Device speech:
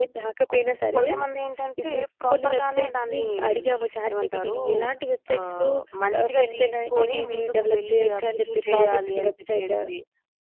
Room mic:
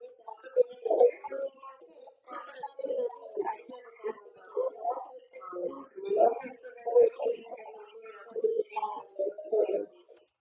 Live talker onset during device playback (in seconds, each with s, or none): none